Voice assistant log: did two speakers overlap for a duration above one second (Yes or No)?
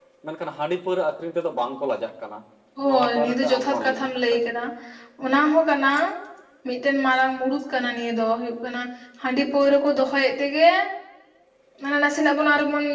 Yes